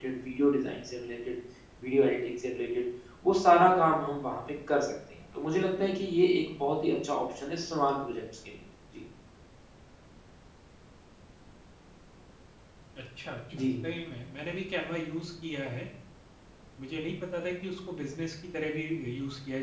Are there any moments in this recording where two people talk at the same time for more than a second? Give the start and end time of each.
none

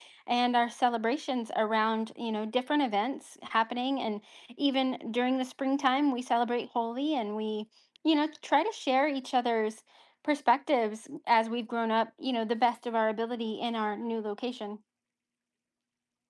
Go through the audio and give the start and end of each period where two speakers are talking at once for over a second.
none

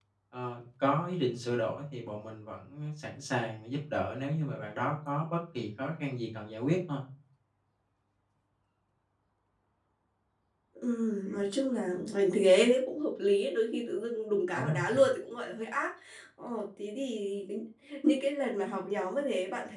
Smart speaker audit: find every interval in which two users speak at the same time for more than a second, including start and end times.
none

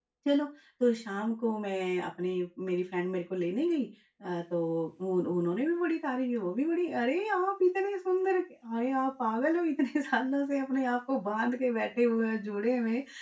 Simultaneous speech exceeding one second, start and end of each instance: none

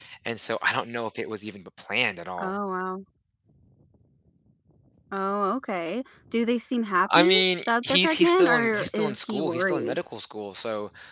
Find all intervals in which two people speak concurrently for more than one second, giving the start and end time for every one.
7.2-10.0

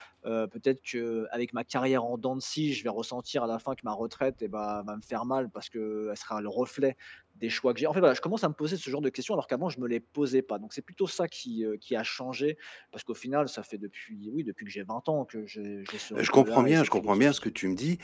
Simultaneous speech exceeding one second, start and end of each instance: 16.2-17.4

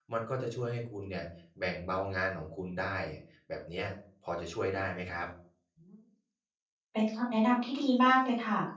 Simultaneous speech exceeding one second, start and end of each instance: none

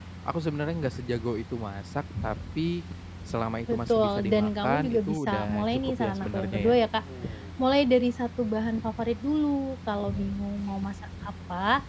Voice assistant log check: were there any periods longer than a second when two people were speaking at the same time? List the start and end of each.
3.7-6.6

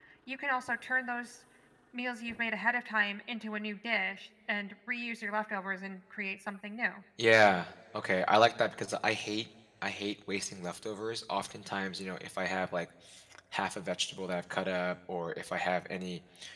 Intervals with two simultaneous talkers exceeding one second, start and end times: none

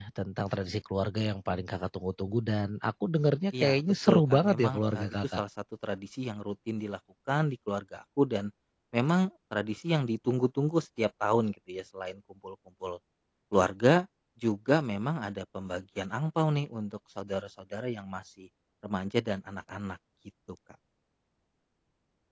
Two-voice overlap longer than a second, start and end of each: 3.6-5.4

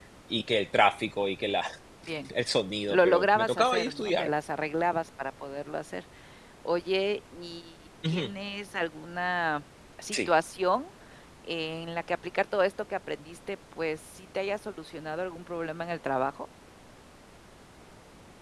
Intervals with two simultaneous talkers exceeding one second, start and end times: 2.9-4.3

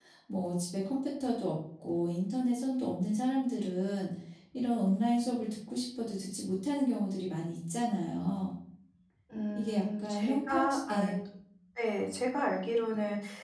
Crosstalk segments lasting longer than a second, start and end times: 9.6-11.2

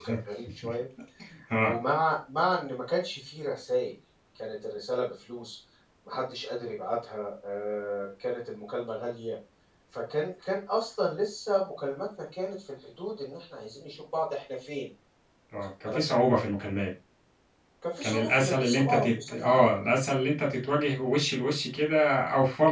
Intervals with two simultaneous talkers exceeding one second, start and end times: 18.0-19.7

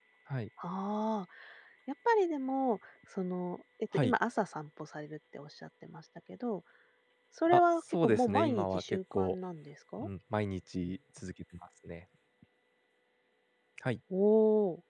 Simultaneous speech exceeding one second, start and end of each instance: 7.5-9.4

